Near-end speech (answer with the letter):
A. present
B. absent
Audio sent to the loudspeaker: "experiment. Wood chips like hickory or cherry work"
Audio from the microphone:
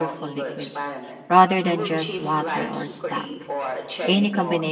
A